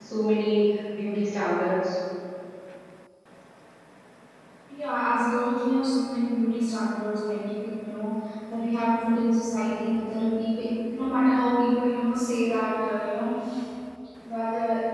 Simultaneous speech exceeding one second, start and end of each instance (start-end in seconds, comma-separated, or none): none